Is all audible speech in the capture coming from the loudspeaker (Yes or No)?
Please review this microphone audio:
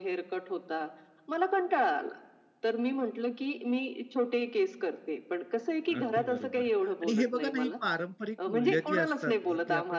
No